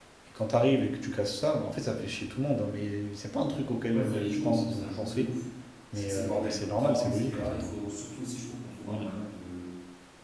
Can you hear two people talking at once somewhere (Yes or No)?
Yes